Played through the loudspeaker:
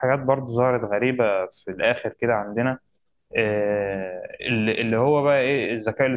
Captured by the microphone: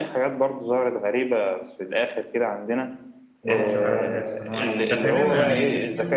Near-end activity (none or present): present